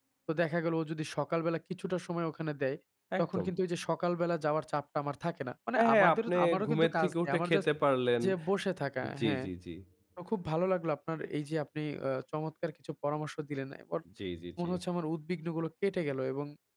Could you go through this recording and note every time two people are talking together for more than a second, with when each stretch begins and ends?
5.8-7.6

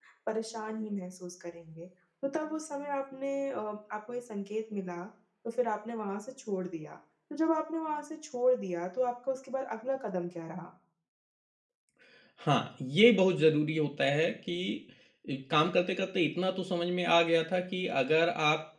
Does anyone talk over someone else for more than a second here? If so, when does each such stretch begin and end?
none

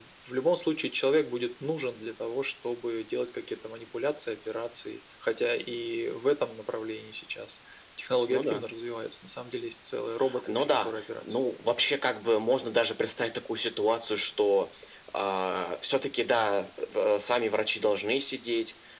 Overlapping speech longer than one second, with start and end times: 10.5-11.7

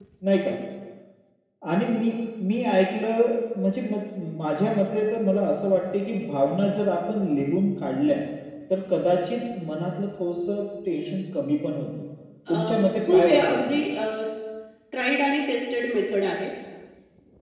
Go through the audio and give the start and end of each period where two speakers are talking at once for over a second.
12.5-13.8

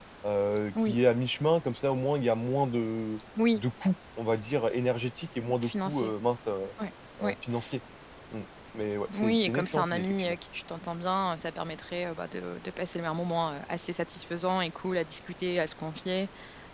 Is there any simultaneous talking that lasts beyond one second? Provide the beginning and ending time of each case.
9.1-10.3

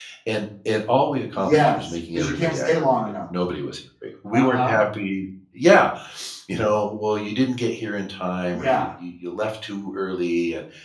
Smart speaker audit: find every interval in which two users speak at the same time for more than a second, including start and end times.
1.4-3.0

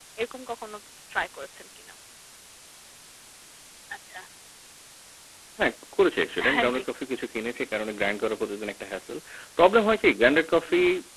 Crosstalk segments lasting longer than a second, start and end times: none

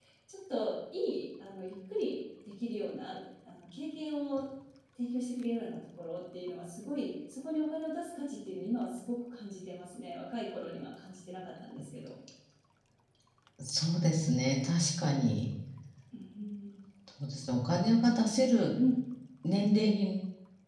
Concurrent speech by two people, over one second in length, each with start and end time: none

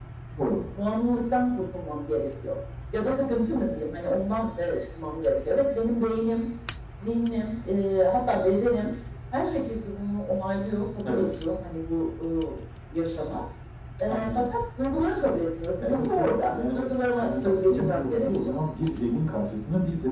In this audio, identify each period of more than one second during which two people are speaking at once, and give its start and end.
15.8-18.5

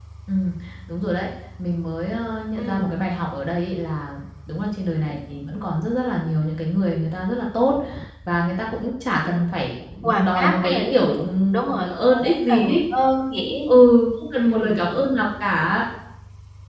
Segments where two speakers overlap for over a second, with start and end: 10.0-12.8

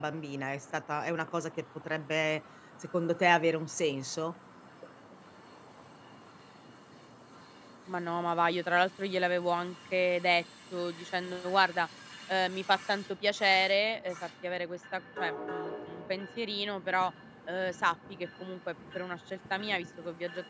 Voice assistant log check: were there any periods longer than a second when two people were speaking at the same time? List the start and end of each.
none

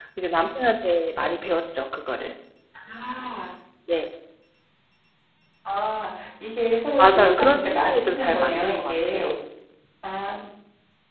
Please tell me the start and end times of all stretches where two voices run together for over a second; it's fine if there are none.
7.0-9.3

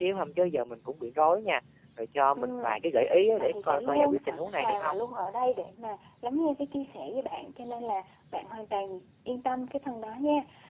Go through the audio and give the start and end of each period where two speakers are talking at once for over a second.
3.4-5.0

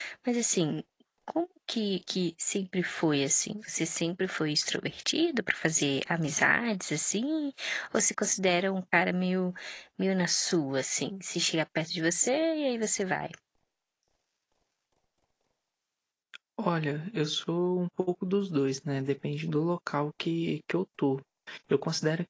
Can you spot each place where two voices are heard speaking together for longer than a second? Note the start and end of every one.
none

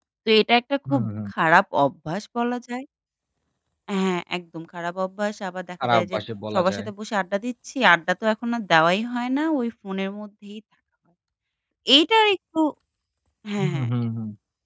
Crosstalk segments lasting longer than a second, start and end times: none

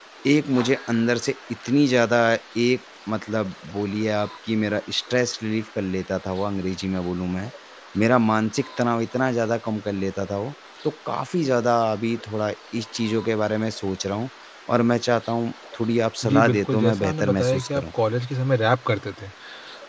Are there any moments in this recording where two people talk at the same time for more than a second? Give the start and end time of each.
16.2-17.8

